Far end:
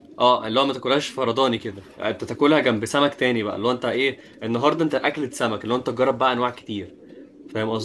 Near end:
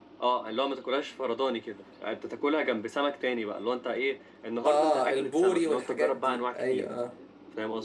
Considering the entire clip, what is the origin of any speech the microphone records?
both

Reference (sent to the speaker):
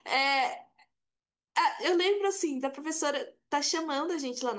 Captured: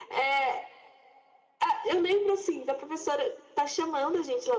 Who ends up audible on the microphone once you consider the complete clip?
echo only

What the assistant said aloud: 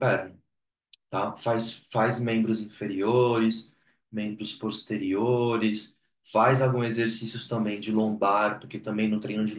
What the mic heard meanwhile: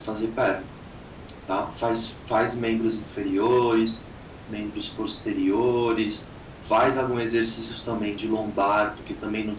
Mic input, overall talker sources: echo only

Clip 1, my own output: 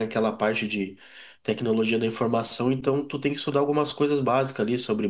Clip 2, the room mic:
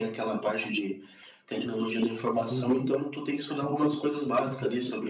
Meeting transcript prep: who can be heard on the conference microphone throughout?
both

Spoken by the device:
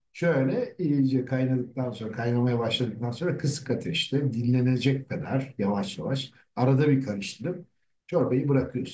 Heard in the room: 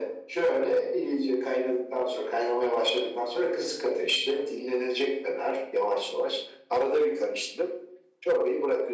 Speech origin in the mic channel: echo only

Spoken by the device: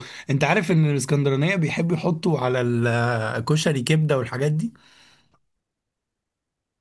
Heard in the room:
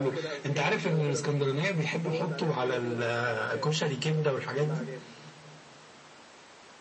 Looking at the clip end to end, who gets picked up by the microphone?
both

